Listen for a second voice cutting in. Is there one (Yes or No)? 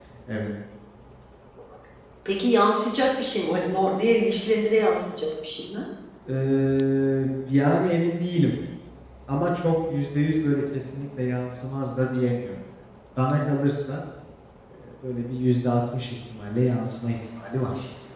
No